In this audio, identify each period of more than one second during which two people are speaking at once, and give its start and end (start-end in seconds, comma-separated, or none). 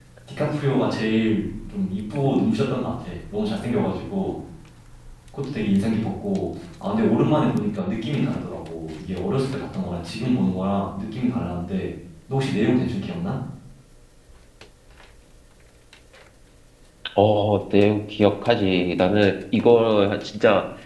none